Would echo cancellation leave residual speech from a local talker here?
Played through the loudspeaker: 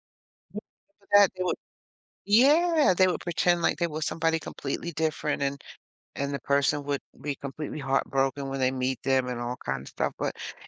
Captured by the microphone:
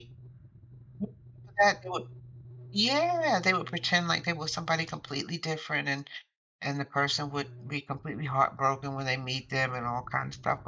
No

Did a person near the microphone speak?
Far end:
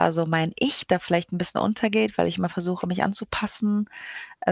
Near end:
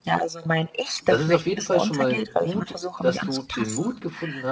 Yes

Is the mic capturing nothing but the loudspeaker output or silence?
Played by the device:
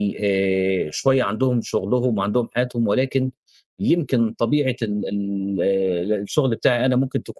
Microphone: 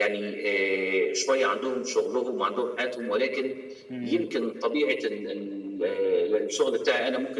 No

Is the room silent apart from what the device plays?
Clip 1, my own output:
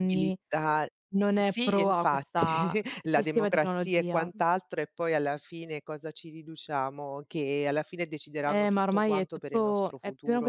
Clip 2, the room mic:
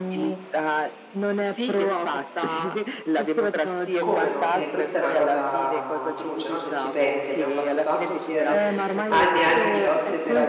No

